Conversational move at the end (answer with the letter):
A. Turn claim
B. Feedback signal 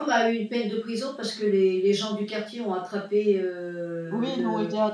A